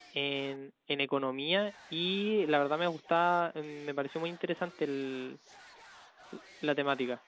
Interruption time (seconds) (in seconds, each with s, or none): none